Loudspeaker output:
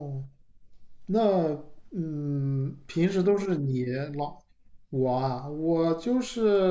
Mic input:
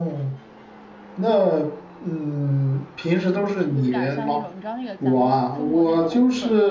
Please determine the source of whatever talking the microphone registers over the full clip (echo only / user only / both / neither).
both